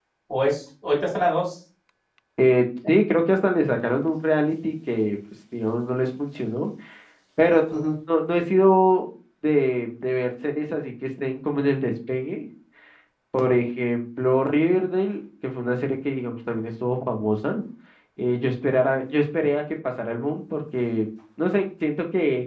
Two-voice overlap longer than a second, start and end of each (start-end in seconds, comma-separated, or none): none